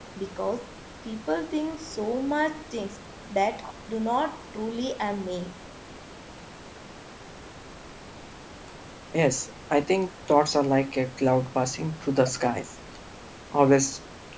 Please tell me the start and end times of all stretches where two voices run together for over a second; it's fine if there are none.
none

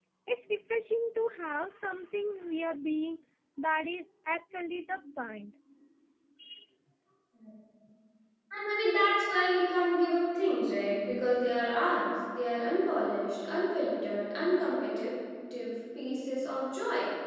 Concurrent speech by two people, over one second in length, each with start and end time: none

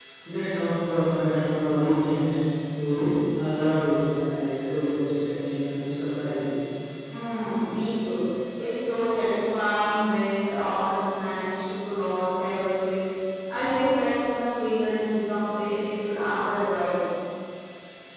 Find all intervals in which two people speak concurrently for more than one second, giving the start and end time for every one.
none

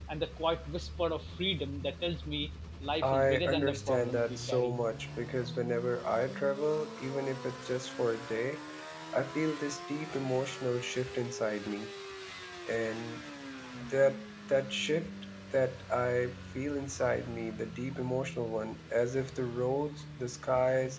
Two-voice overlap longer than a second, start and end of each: 3.0-4.8

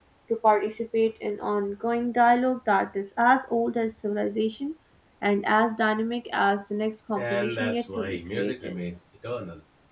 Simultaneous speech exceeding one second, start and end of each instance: 7.2-8.7

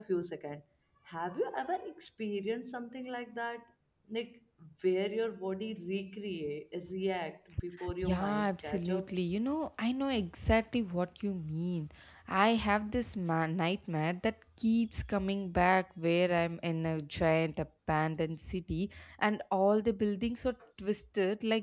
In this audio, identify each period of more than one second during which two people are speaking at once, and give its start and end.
8.0-9.4

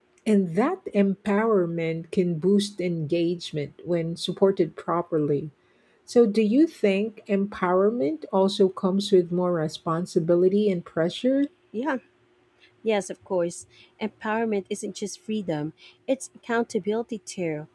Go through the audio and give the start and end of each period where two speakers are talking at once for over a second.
none

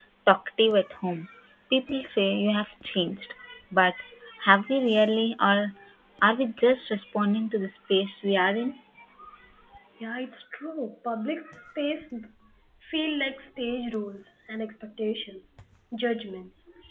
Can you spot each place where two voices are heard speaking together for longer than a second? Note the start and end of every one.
none

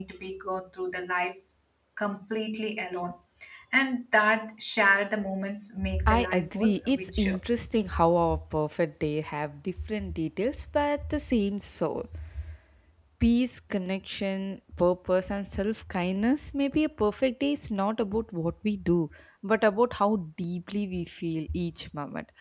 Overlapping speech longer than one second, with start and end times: 6.0-7.4

